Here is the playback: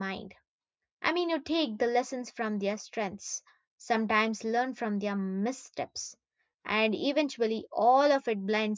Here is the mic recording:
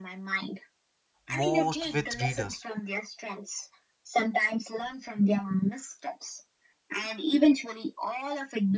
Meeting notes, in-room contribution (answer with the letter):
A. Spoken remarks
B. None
A